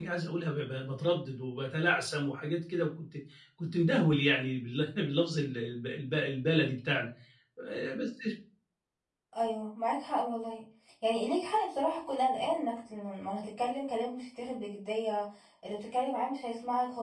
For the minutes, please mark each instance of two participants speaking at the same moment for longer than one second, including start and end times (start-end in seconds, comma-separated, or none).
none